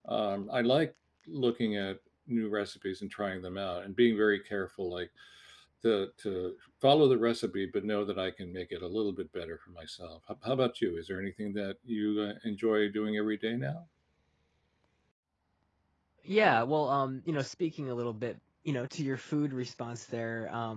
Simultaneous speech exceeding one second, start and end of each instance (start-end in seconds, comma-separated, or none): none